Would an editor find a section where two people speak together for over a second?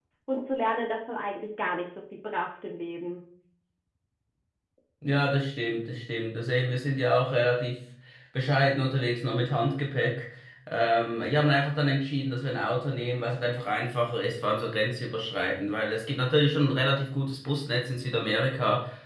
No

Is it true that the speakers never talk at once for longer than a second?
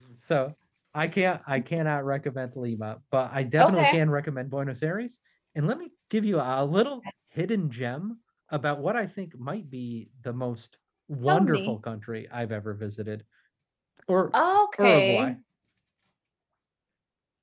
Yes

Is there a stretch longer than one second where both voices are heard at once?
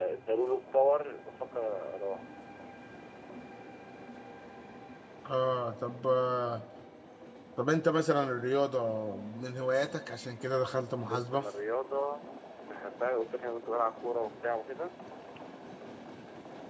No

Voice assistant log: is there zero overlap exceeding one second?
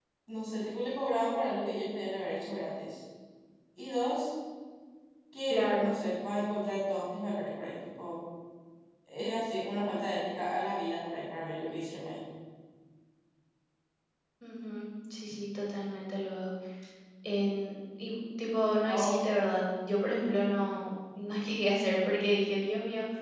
Yes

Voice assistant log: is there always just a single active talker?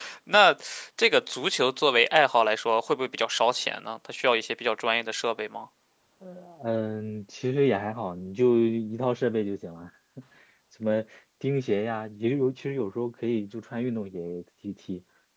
Yes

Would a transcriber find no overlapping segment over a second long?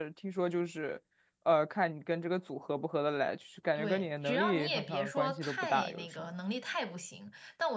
No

